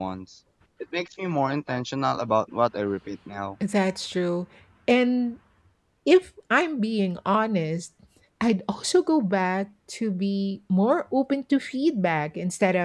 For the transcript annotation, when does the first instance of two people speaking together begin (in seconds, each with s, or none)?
none